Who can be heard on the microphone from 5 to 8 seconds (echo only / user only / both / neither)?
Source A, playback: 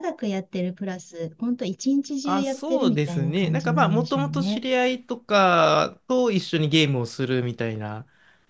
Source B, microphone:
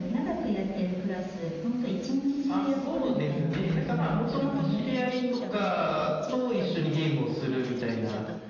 both